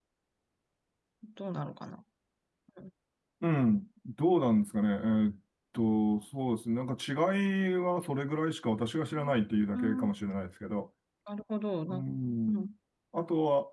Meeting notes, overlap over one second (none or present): none